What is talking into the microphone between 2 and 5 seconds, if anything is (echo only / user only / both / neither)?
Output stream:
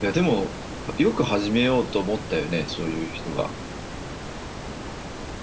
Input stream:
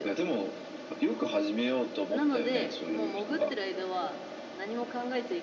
both